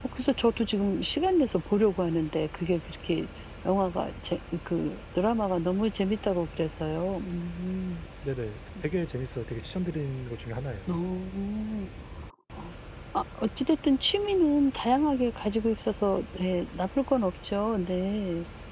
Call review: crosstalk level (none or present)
none